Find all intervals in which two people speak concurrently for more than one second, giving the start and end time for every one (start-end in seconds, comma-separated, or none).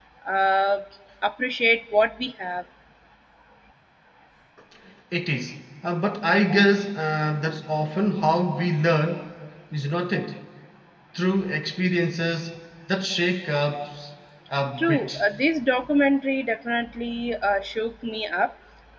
none